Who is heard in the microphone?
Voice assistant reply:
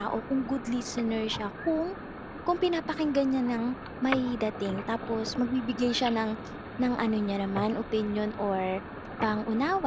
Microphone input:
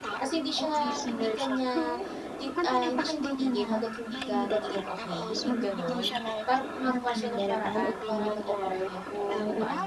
both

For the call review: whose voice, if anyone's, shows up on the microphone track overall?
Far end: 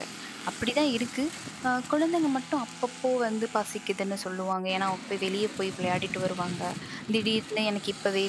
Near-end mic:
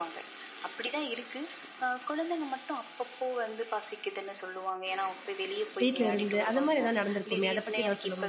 both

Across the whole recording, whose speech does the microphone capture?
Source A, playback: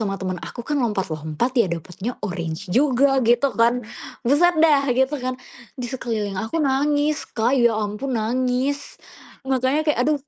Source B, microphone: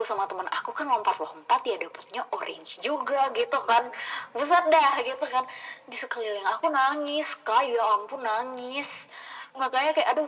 echo only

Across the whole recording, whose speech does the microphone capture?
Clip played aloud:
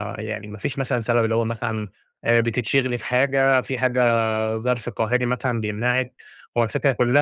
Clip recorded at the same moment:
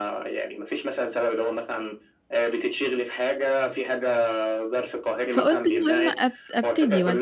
both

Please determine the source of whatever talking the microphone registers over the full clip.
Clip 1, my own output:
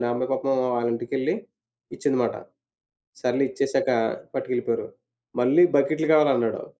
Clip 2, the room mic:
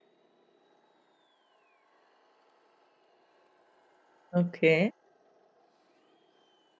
user only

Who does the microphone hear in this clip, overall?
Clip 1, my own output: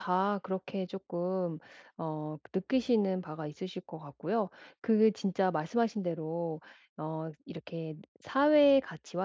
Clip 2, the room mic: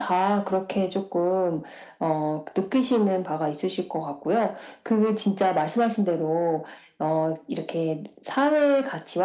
echo only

